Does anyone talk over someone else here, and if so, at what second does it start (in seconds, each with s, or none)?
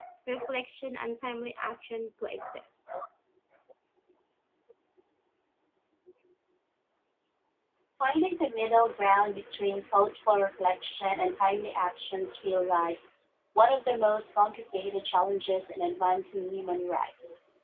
none